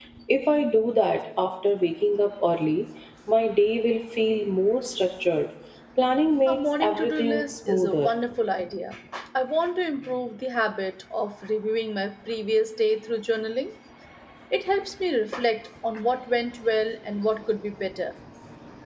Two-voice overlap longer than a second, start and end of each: 6.5-8.1

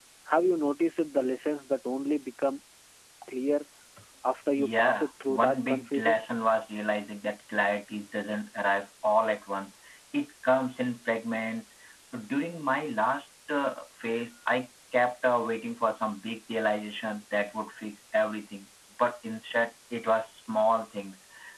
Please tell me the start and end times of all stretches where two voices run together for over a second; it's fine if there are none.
4.6-6.2

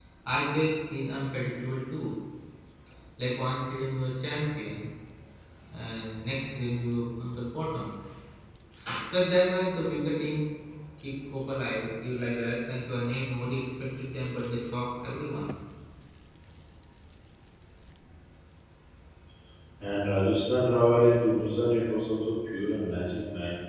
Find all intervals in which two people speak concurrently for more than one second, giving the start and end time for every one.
none

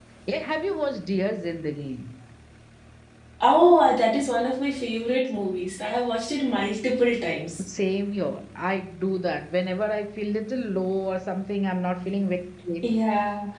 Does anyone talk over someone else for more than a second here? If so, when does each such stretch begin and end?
none

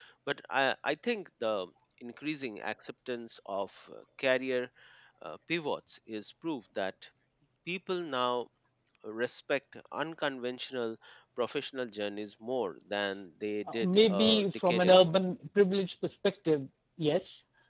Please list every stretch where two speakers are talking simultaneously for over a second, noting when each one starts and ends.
13.7-15.1

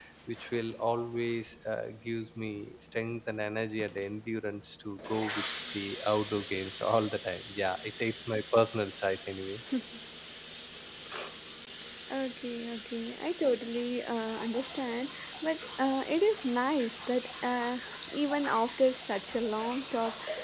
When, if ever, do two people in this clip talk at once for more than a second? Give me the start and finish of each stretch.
none

